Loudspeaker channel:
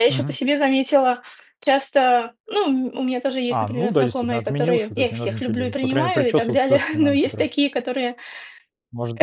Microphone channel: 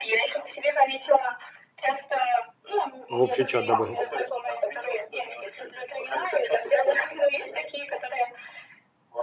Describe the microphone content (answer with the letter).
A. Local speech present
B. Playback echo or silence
A